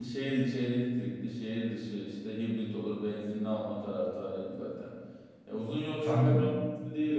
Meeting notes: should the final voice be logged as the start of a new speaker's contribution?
No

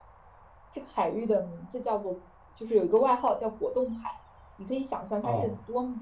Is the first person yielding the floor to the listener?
No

